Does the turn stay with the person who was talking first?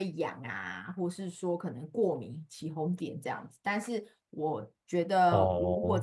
Yes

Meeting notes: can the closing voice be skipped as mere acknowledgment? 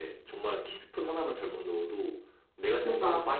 Yes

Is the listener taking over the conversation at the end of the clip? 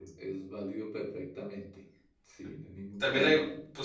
Yes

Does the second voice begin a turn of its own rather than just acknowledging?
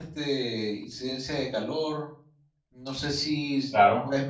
No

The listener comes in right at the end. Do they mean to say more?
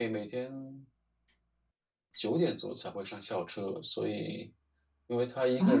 Yes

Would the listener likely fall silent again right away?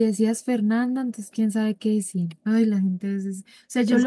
Yes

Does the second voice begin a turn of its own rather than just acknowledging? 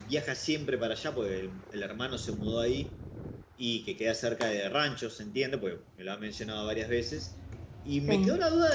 No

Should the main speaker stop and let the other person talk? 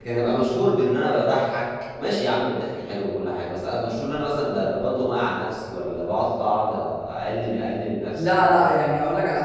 Yes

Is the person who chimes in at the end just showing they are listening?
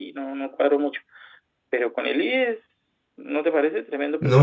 No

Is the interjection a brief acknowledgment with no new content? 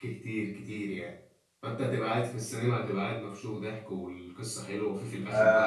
No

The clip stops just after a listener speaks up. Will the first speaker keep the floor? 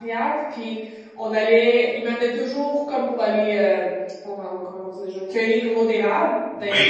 Yes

